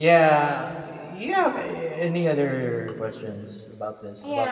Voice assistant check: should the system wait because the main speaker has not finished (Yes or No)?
No